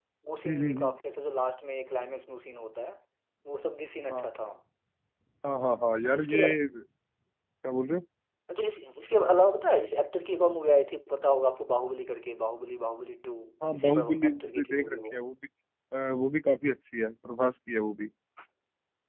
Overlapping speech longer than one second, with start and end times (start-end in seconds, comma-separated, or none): 13.7-15.1